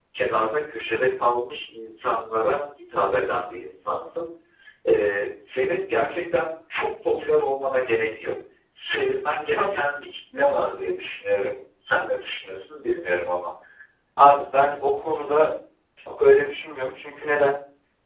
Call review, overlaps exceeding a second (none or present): none